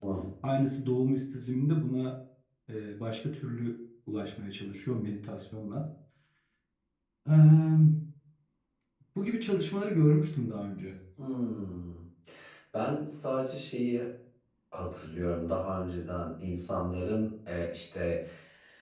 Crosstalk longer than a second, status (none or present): none